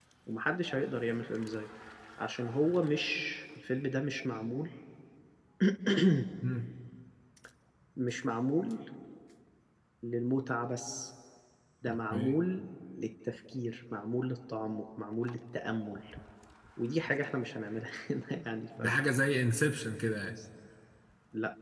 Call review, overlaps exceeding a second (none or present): none